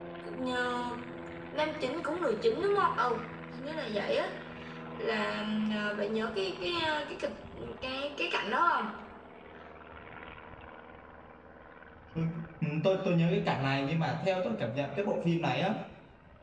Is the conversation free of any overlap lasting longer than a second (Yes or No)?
Yes